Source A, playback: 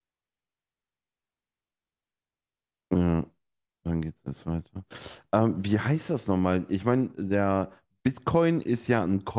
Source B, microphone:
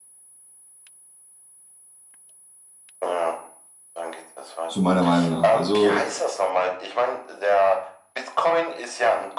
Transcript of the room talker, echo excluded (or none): zu meiner Meinung nach. Also,